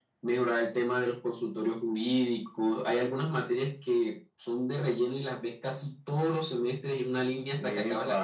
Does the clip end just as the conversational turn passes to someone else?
Yes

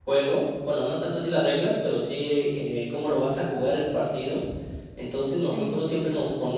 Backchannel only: Yes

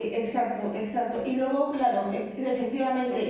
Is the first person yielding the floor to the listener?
No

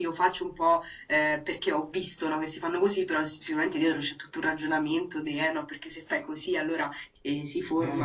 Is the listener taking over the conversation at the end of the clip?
No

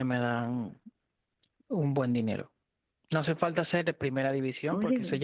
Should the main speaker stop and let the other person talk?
No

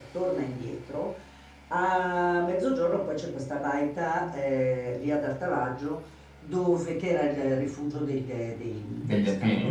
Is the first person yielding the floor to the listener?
No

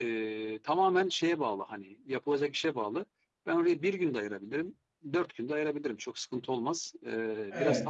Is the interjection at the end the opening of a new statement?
Yes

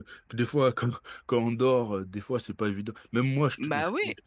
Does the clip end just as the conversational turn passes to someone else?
No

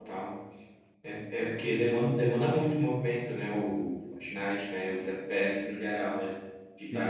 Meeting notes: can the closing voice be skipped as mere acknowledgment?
Yes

